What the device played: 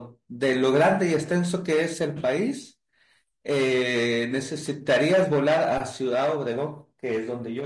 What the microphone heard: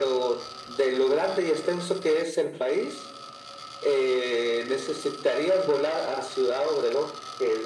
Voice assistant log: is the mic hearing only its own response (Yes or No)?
Yes